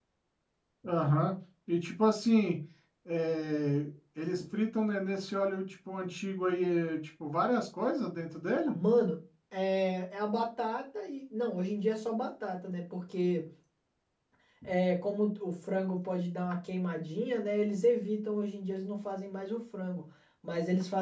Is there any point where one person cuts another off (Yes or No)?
No